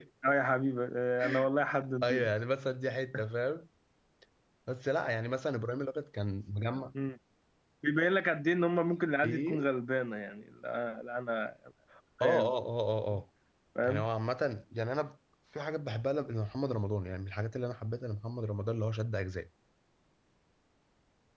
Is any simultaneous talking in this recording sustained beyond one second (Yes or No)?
No